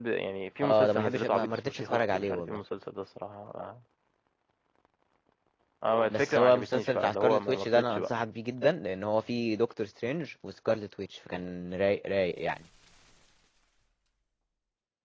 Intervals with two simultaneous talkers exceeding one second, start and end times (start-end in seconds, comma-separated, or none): 0.6-2.6, 6.1-8.1